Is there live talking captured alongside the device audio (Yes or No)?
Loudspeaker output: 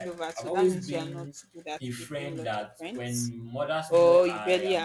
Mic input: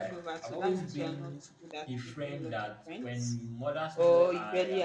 No